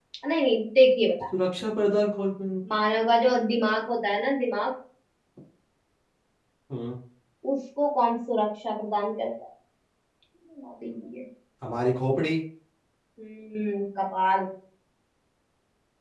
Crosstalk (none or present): none